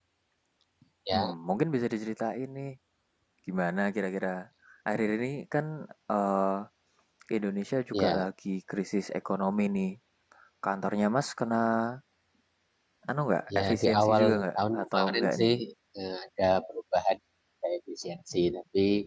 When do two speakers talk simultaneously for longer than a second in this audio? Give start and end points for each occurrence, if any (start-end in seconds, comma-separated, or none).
13.6-15.5